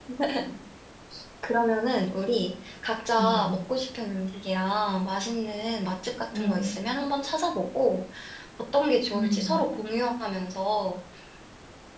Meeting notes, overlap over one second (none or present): none